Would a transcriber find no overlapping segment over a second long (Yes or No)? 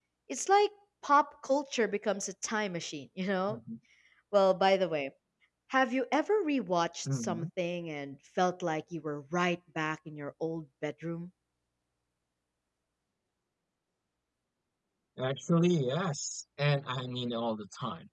Yes